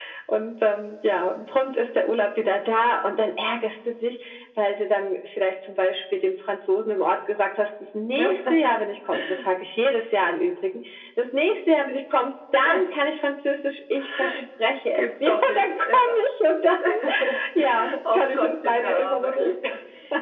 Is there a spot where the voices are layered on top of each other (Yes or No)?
Yes